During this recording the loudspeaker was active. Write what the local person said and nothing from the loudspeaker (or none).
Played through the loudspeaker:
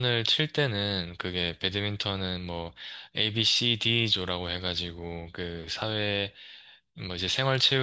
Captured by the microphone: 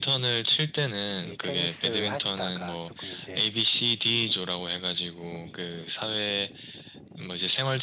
이 테니스를 하시다가 조금 이제